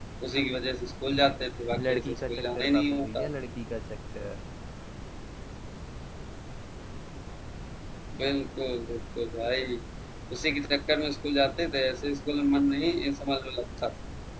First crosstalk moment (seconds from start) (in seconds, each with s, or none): 1.8 s